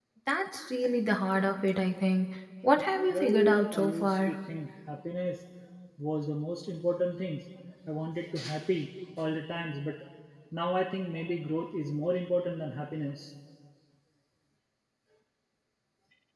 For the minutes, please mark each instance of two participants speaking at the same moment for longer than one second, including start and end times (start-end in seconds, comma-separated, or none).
3.1-4.4